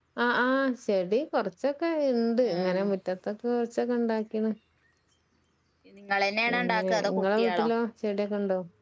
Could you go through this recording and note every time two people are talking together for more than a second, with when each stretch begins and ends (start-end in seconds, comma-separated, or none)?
6.5-7.7